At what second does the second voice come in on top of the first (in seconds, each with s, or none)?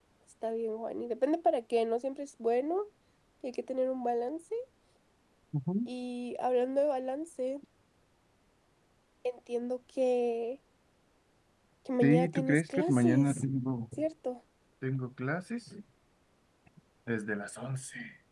12.0 s